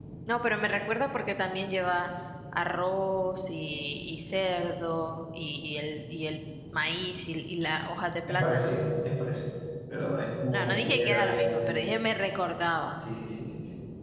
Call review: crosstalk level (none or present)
present